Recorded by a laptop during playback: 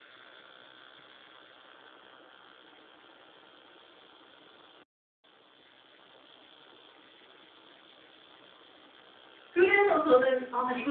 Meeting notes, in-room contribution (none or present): present